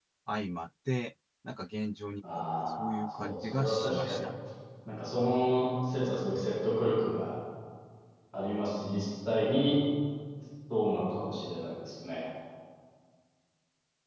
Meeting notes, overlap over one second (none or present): present